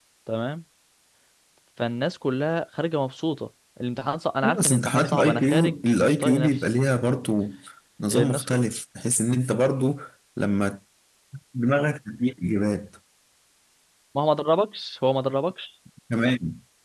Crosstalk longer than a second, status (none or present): present